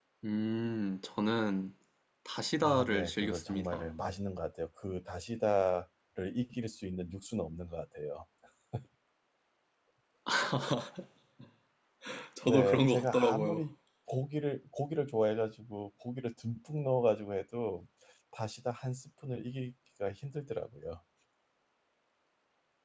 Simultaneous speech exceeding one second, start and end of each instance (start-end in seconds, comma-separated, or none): 2.6-3.8, 12.4-13.6